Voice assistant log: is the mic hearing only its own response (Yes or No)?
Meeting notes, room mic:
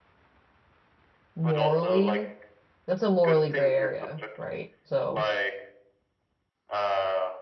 No